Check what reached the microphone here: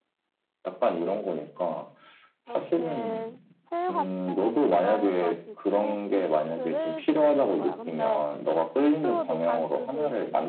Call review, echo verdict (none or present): present